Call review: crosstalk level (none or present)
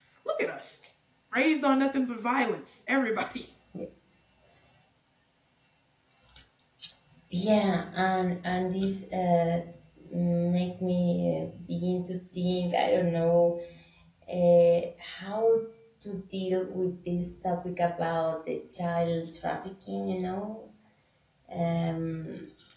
none